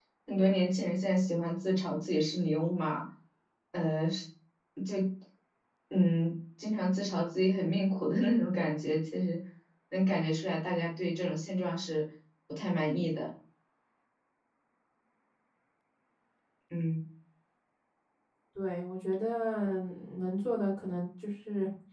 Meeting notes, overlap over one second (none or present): none